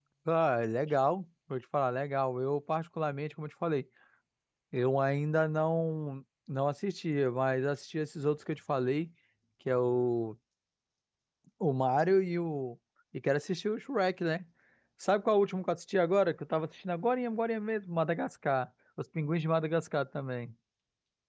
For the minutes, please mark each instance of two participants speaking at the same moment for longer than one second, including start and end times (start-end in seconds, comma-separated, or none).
none